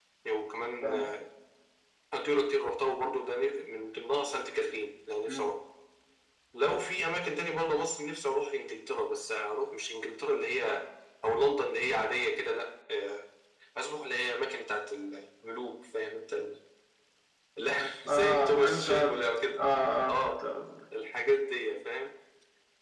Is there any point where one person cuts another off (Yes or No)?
Yes